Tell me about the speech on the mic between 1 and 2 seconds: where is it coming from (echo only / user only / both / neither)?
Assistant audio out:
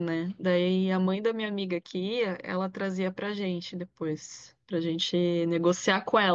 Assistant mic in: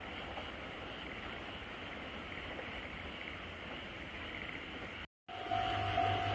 neither